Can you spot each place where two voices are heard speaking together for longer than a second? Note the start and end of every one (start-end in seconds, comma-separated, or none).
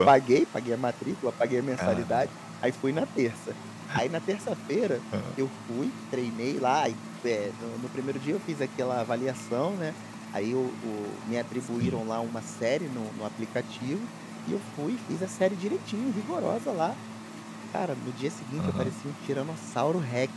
none